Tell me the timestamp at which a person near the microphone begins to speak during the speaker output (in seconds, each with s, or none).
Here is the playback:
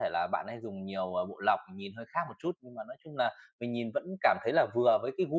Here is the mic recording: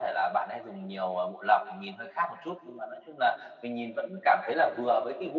none